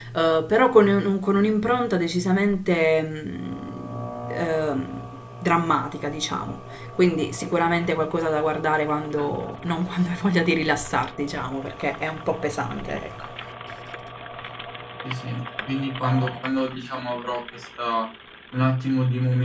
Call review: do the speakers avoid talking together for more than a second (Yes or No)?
Yes